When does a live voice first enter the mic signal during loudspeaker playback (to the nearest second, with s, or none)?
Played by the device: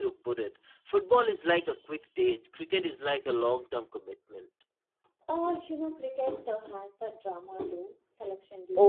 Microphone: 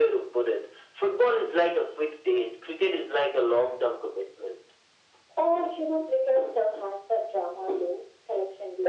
none